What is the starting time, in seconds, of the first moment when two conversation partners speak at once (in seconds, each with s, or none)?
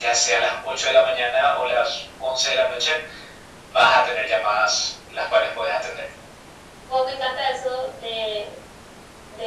none